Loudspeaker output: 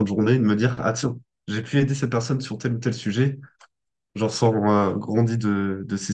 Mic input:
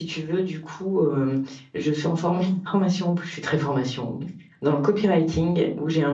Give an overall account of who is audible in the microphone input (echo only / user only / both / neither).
user only